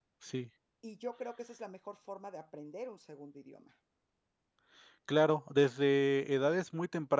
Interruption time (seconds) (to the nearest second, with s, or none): none